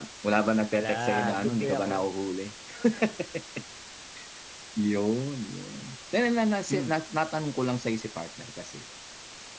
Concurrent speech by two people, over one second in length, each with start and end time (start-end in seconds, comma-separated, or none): 0.7-2.1